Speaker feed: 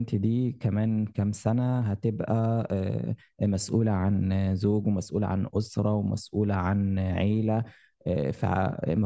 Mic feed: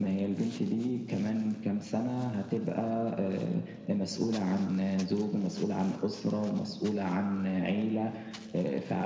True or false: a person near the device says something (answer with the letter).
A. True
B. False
B